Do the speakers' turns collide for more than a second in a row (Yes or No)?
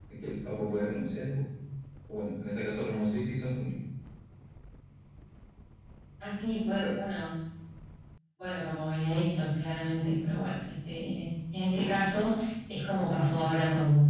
No